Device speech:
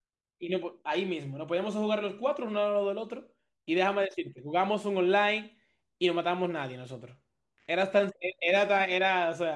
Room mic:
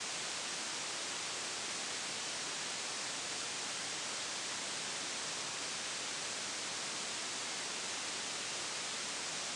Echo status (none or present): none